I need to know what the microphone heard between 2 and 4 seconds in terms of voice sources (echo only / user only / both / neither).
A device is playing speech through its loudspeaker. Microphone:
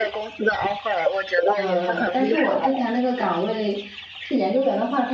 both